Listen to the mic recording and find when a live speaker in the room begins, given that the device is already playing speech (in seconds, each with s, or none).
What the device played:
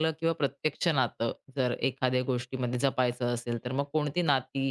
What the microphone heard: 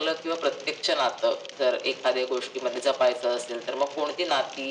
none